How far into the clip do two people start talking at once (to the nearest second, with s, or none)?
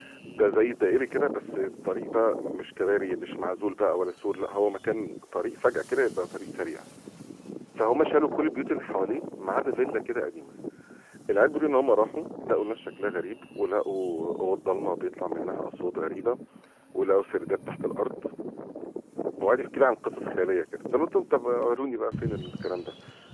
none